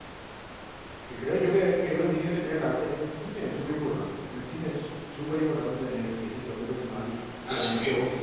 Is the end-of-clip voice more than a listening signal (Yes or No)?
No